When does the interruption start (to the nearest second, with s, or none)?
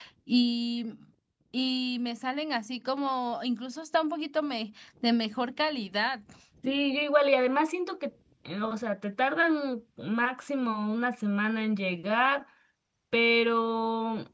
none